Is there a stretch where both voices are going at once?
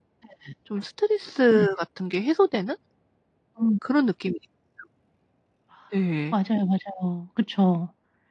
No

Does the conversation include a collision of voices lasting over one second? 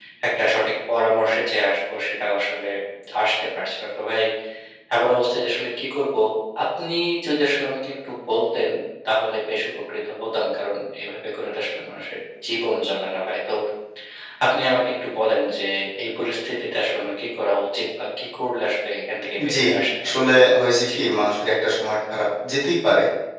No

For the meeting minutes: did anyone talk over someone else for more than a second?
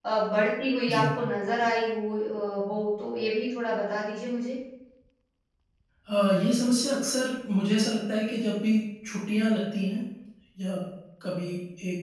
No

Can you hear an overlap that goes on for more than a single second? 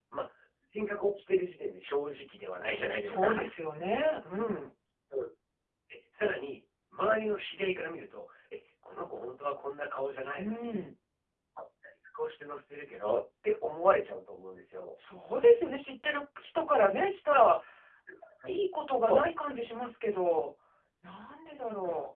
No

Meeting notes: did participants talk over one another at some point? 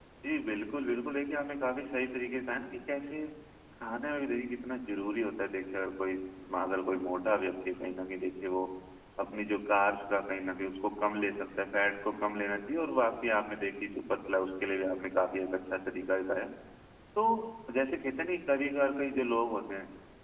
No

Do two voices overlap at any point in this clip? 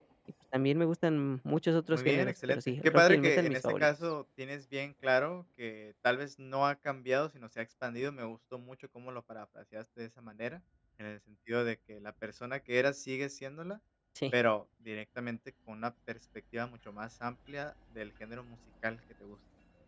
Yes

